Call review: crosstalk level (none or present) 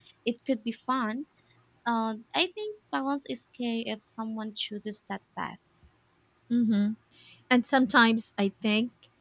none